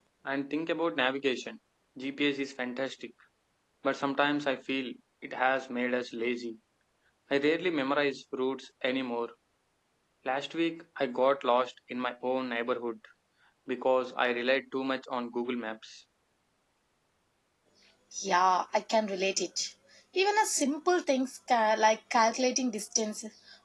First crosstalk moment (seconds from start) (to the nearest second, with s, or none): none